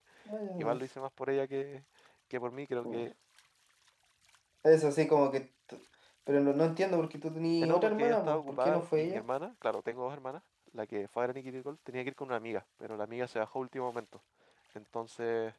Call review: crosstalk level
present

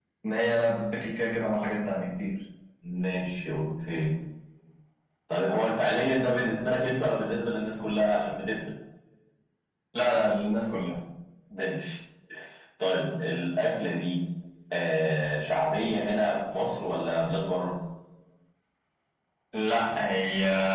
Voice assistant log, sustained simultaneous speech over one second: none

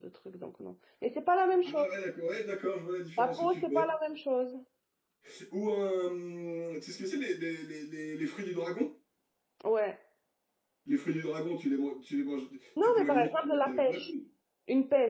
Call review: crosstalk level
present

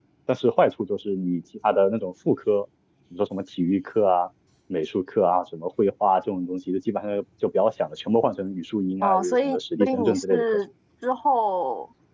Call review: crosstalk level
present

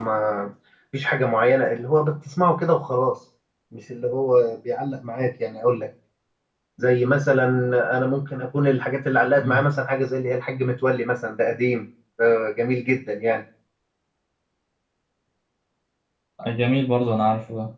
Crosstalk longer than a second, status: none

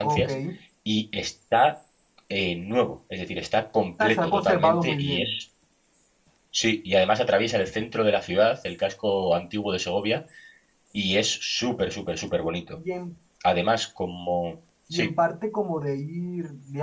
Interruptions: present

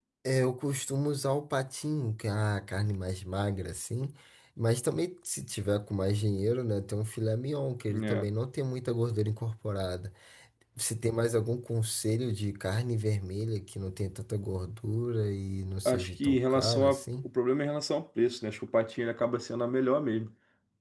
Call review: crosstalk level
present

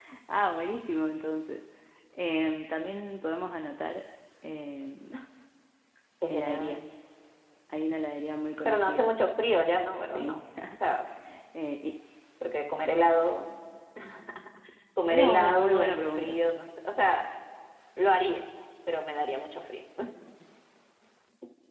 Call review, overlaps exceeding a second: present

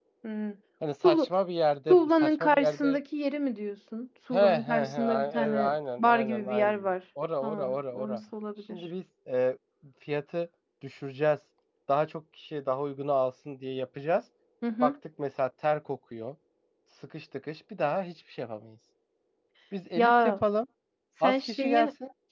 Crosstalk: present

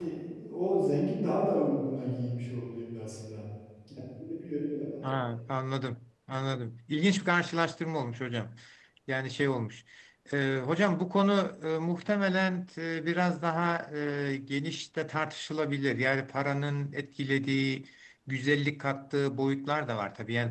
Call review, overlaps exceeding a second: none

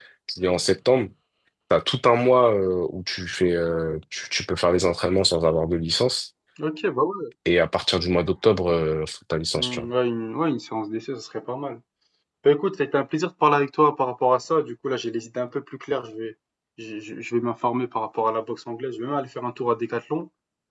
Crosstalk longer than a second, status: none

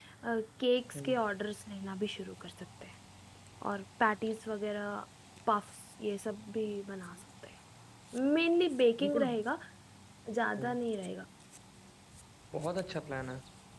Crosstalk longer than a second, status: none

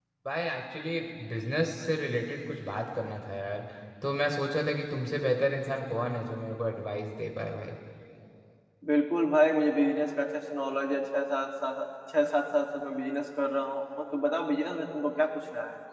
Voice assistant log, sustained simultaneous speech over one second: none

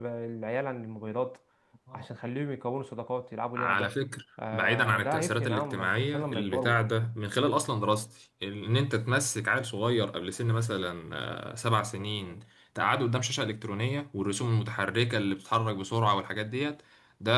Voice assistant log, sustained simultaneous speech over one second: present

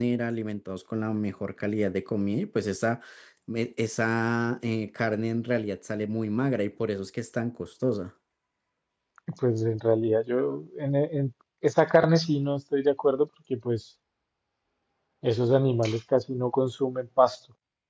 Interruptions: none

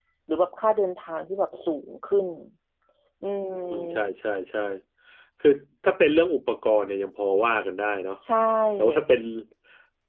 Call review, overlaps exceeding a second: none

